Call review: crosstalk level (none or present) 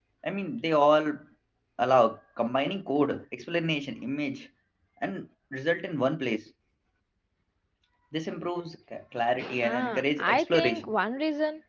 present